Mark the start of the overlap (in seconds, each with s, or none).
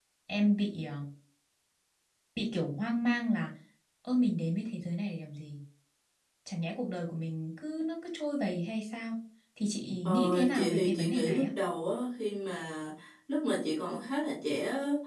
10.1 s